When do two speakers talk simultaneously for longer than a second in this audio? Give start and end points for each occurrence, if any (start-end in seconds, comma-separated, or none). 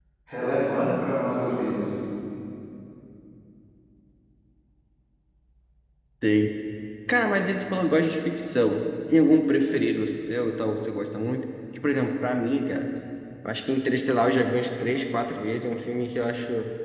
none